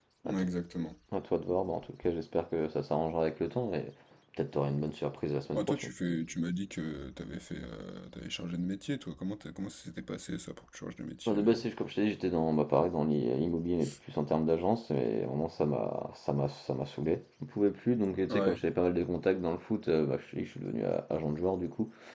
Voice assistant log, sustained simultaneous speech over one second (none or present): none